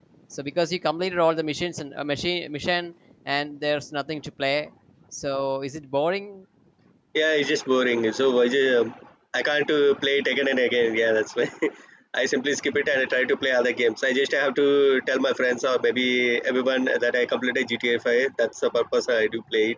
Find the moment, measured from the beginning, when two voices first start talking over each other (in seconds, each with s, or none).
none